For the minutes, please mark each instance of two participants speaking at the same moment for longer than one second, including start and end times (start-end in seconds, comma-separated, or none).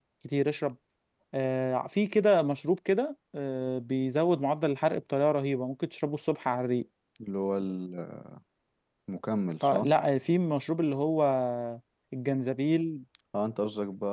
none